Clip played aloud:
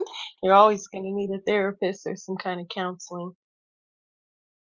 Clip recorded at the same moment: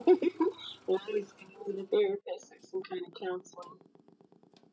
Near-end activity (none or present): none